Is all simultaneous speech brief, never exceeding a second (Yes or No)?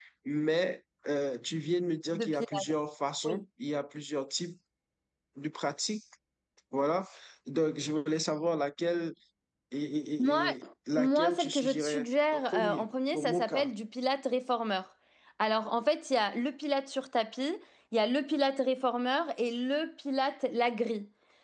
No